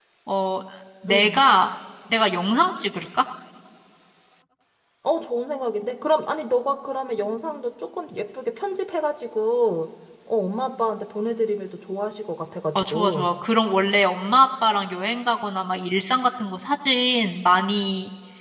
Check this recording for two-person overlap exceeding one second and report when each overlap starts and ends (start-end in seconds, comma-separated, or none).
none